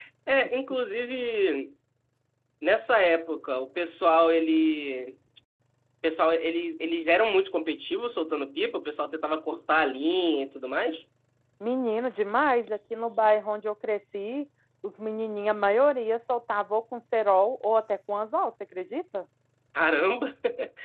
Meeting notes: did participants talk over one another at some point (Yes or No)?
No